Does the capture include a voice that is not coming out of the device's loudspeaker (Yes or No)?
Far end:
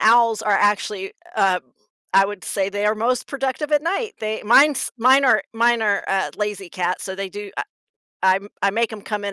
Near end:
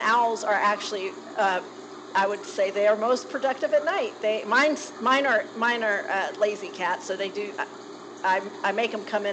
No